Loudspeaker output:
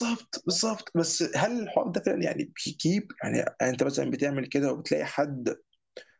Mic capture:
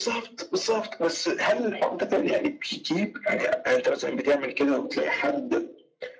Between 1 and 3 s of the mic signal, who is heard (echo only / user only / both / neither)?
echo only